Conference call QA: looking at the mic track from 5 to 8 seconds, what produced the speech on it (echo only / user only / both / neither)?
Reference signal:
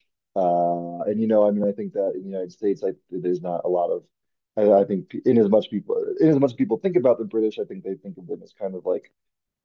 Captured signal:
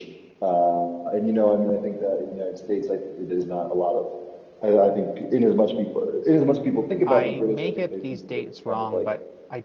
both